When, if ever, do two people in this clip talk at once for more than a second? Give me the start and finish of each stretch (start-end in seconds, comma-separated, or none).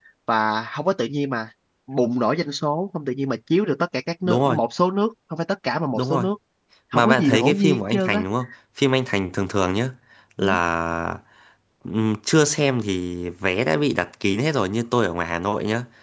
6.9-8.2